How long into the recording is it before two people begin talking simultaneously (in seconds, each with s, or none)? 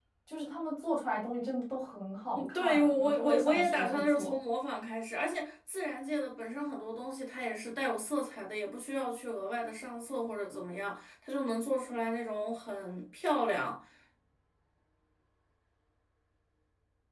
2.4 s